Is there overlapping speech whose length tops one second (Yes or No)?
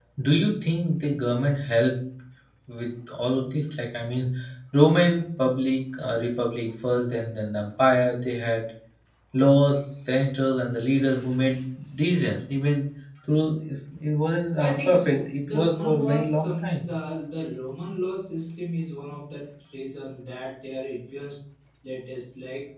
Yes